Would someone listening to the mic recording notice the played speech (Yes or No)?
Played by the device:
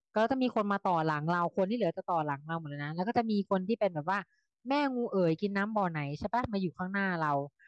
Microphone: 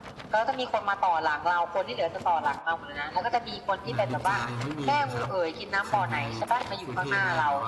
Yes